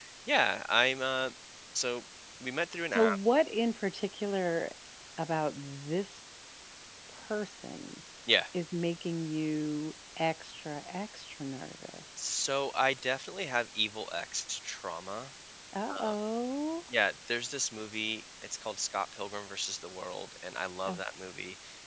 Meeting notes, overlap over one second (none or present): none